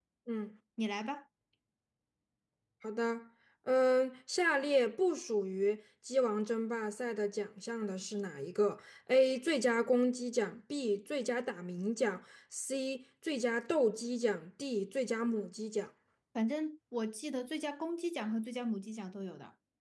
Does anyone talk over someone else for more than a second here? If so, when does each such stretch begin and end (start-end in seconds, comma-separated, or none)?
none